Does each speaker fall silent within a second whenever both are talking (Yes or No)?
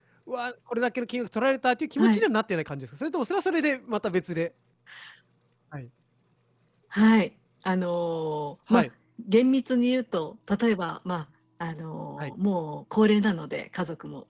Yes